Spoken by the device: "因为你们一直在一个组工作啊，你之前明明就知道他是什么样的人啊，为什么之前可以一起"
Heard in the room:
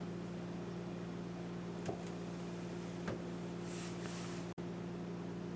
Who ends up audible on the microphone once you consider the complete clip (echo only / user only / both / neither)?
neither